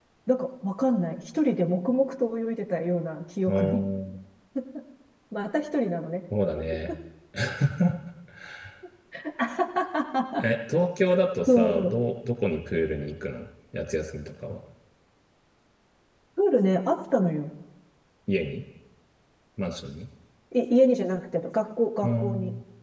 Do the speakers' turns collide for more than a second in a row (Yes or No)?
No